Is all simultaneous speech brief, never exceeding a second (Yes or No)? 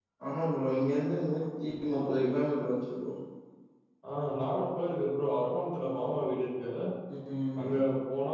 Yes